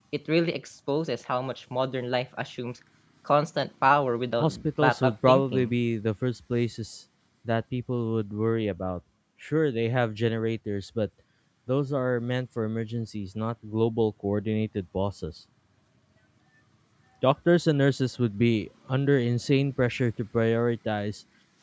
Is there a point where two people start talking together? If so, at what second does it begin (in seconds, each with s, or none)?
4.4 s